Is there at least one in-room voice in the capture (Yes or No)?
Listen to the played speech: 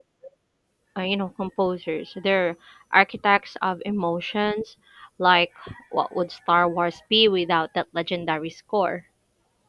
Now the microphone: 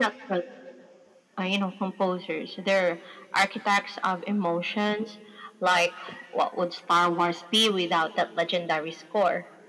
No